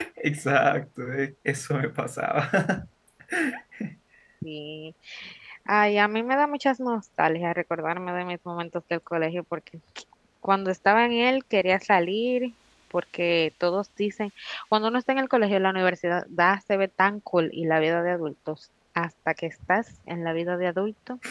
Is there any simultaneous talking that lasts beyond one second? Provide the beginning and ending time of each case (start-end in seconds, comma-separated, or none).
none